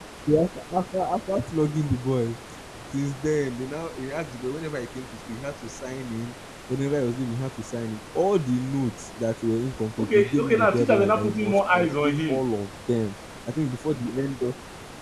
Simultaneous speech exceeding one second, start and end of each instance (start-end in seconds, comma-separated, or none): 10.0-12.4